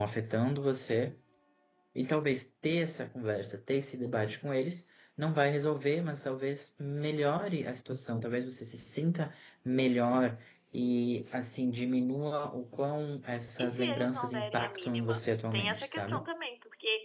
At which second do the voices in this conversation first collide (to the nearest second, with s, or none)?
14 s